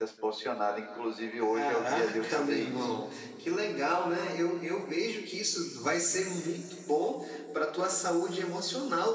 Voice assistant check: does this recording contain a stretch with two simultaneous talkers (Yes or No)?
Yes